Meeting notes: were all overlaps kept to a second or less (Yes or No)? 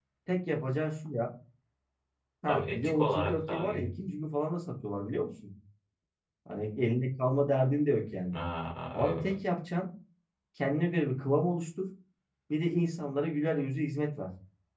No